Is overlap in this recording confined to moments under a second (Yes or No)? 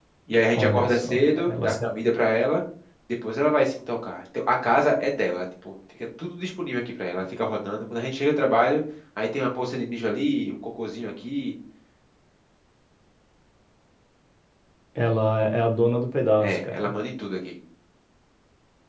No